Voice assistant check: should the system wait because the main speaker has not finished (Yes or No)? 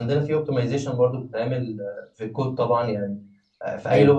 Yes